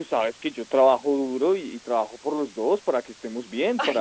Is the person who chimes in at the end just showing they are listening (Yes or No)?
No